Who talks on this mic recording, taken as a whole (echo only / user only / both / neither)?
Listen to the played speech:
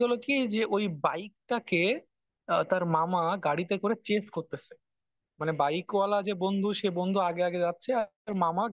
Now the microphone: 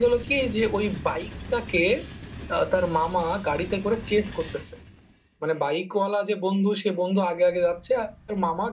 echo only